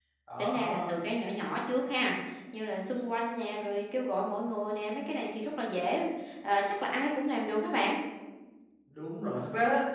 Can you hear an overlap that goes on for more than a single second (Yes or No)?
No